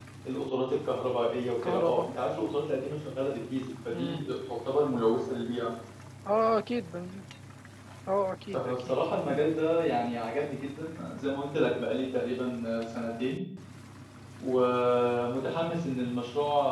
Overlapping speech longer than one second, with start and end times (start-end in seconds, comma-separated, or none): none